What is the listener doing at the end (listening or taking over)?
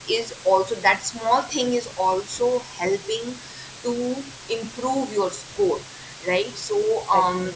listening